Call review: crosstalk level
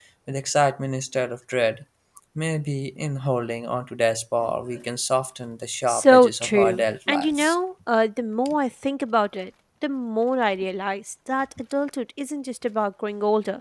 present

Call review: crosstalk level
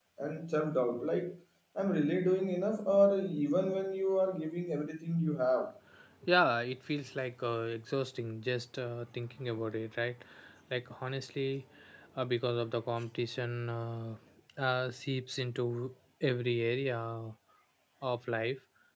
none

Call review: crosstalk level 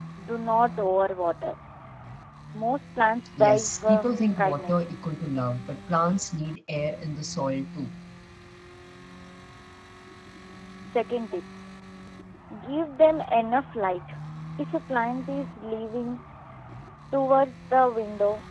present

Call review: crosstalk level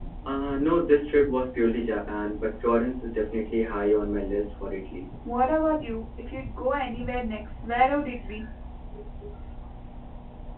none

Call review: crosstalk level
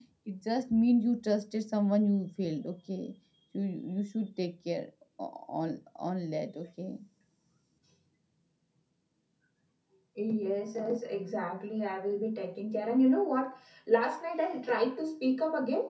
none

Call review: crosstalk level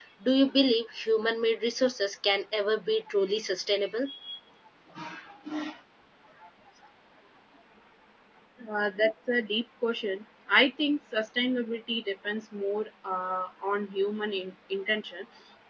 none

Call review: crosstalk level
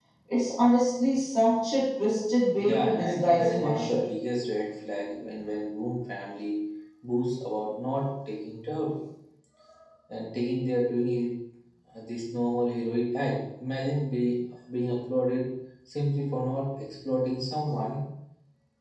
present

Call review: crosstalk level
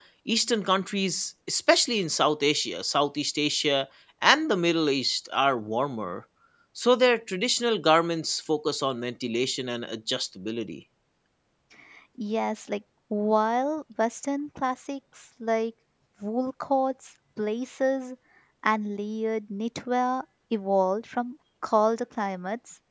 none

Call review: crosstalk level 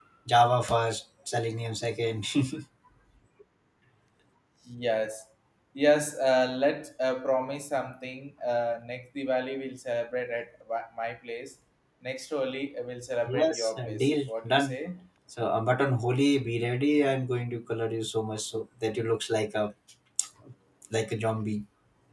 present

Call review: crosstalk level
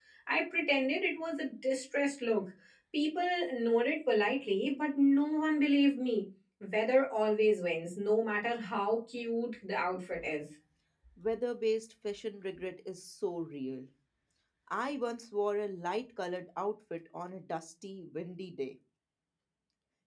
none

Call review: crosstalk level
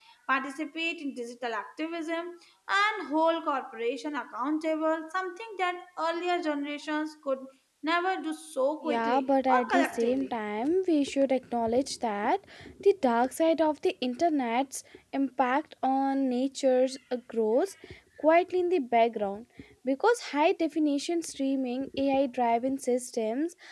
present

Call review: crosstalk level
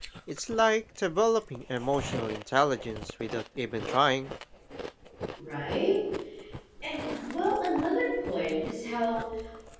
none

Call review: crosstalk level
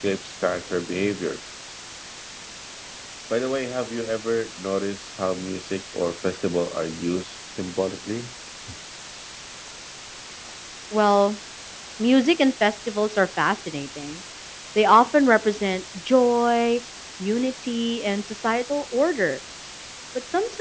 none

